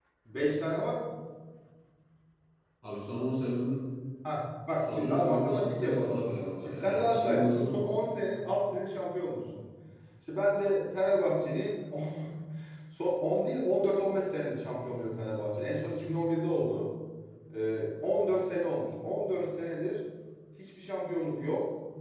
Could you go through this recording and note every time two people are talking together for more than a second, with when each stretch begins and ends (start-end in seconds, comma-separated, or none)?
4.8-6.2, 6.6-7.9